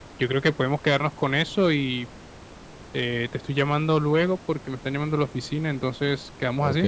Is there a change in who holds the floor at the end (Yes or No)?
Yes